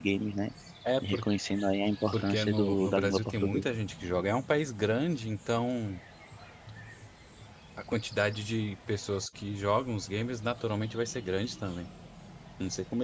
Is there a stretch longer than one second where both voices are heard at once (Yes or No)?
Yes